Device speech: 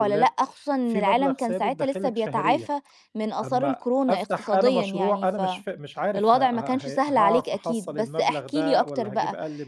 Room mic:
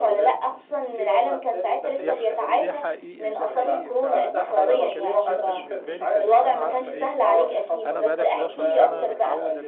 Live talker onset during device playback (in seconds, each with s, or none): 1.8 s